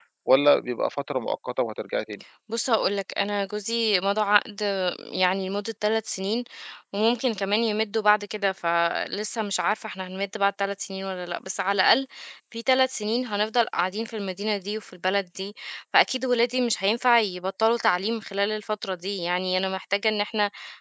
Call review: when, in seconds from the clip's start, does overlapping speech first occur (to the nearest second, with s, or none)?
none